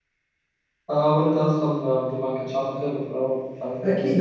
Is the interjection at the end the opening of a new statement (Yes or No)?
Yes